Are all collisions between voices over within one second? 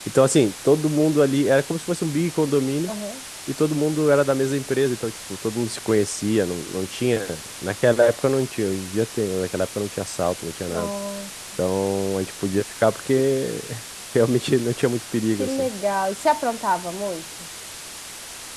Yes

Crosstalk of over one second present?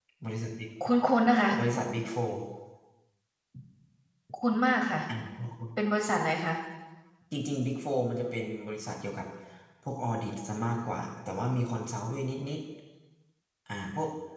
No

